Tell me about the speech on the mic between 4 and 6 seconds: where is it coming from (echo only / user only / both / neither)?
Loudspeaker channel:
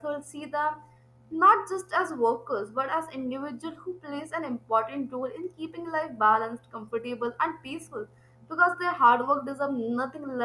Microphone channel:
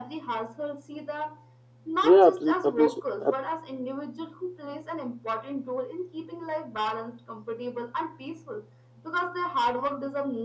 echo only